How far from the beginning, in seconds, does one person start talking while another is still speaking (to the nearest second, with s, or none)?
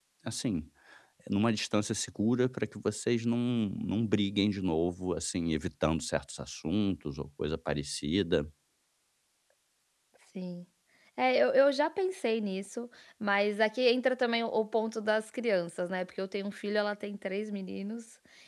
none